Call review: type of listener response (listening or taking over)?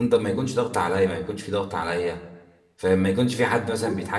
listening